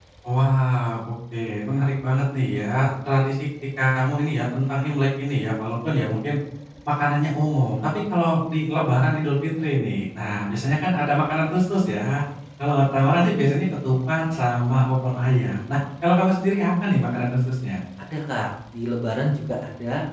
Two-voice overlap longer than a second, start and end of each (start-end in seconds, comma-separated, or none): none